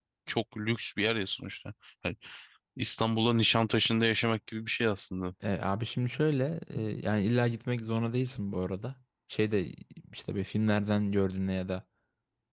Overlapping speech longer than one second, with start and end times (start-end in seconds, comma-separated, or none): none